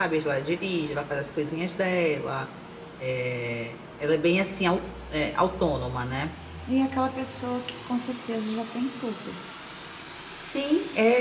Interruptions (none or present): none